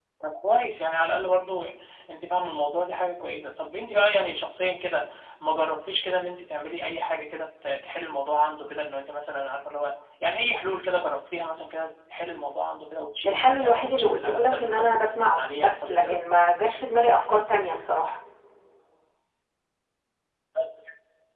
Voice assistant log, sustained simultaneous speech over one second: present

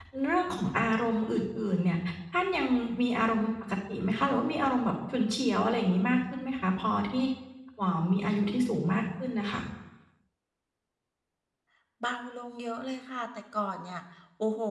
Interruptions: none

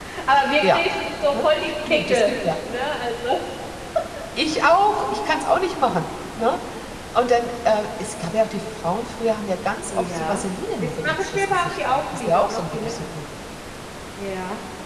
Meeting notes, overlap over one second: present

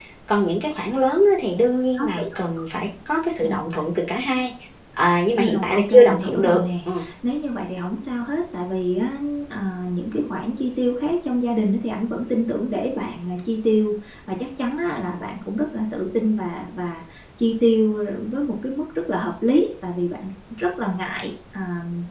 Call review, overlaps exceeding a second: present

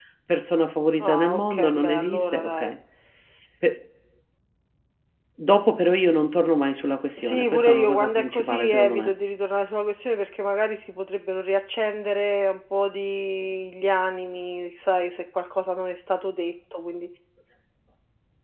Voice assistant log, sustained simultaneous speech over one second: present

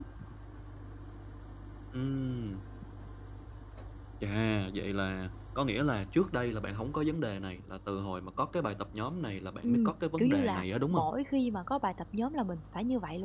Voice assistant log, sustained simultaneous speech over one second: present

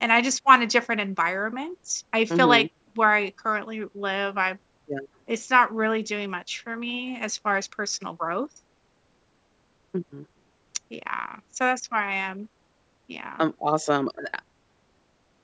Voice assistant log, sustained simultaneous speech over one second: none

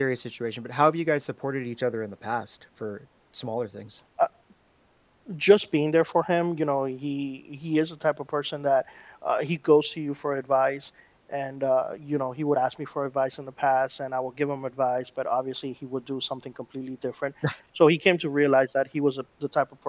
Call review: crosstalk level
none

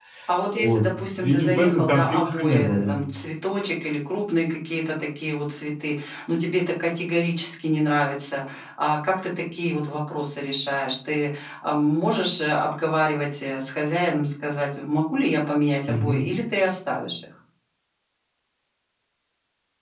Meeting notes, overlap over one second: present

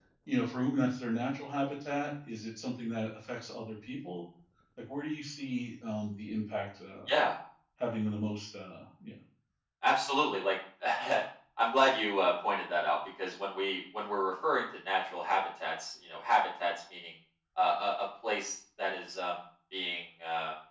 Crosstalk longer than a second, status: none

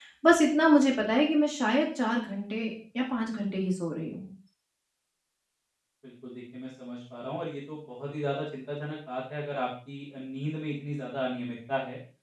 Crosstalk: none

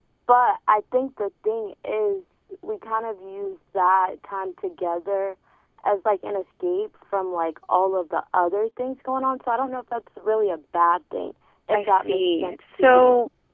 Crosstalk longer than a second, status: present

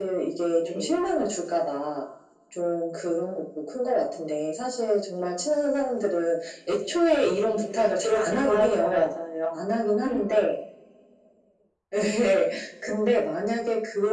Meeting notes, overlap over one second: present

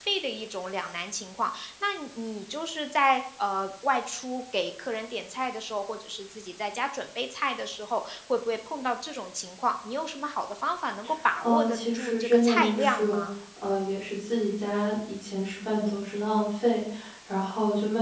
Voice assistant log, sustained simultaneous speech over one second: present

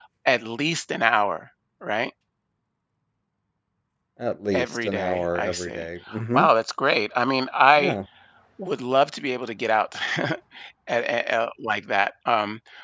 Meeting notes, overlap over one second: present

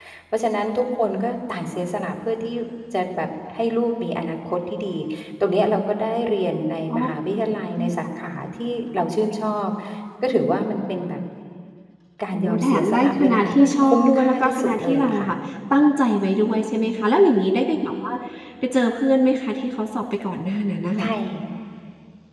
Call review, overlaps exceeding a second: present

